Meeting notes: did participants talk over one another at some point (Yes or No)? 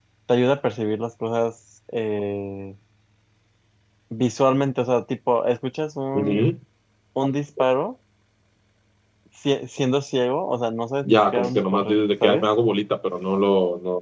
Yes